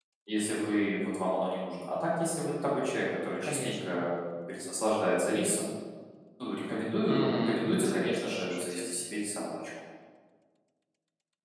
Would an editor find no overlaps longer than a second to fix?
No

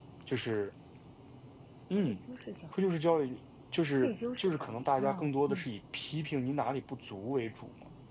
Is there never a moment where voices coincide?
No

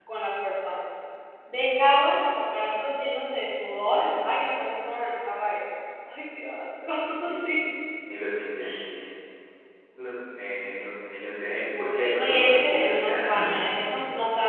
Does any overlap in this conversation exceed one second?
Yes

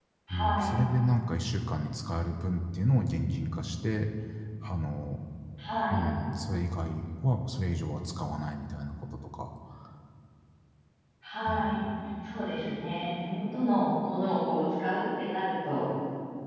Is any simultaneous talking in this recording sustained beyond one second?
No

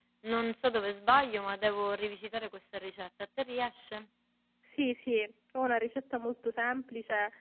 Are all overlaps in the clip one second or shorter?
Yes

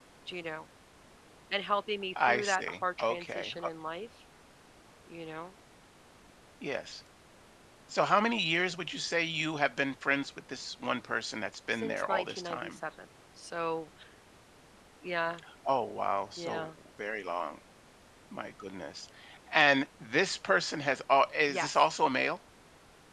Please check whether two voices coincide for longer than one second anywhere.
Yes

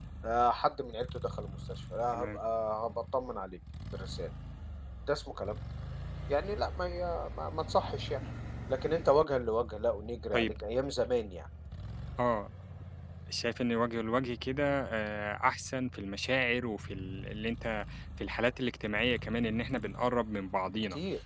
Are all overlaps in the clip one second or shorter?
Yes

